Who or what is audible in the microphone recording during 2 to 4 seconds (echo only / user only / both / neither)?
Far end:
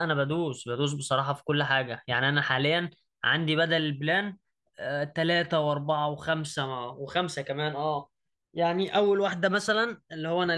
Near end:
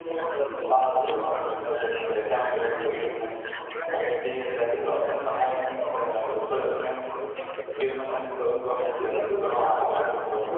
both